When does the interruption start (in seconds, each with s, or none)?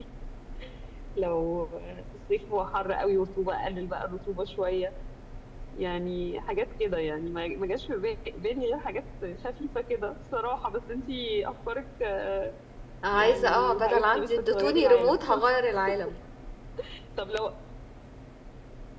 13.1 s